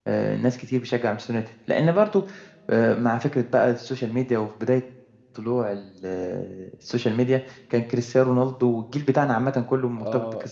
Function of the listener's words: taking over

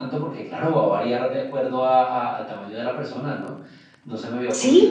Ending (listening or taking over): taking over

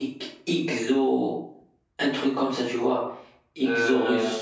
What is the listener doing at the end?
listening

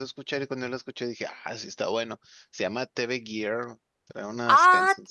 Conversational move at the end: listening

